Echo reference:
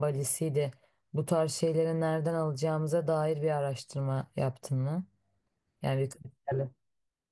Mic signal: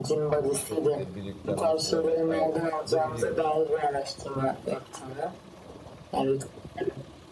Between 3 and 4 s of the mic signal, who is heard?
both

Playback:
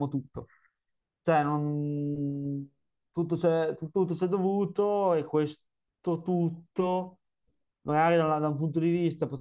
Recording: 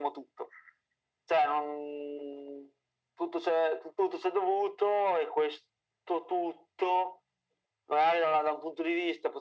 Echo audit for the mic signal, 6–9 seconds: echo only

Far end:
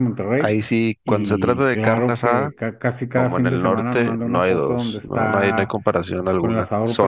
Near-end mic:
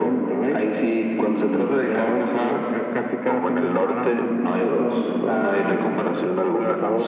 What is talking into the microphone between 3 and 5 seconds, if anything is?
echo only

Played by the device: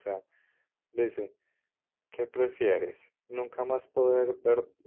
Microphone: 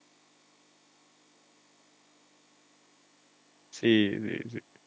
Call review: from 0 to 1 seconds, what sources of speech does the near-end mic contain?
neither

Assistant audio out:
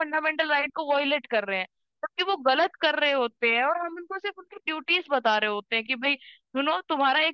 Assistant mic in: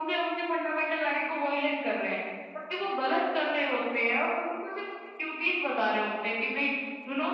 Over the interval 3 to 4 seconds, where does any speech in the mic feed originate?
echo only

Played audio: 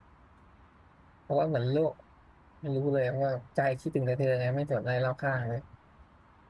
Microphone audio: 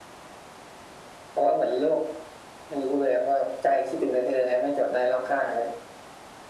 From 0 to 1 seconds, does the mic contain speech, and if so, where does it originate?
neither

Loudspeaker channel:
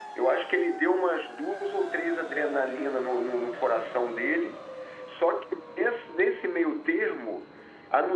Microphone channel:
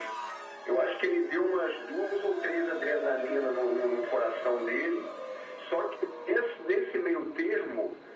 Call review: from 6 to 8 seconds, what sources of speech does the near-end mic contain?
echo only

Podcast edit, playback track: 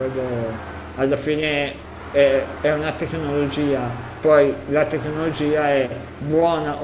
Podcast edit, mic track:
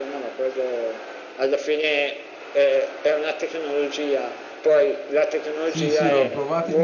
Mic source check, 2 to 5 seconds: echo only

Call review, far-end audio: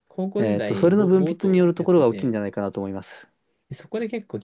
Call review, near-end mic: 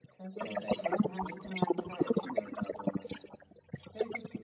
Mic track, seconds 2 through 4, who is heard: echo only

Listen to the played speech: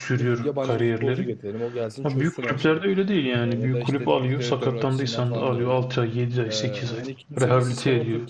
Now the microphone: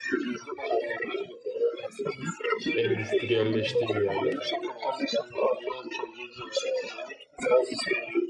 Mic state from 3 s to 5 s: both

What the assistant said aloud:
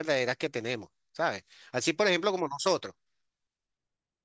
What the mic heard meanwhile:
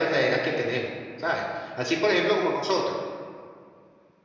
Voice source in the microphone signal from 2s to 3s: echo only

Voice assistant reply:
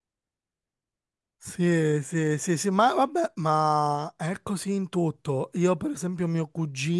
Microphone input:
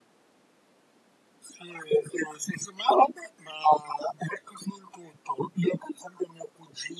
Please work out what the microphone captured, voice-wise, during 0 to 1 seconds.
neither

